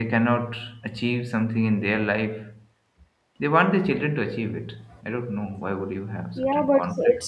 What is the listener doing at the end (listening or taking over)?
taking over